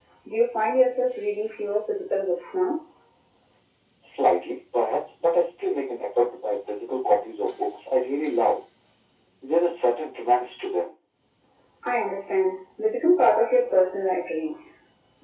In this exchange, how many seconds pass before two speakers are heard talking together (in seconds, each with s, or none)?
none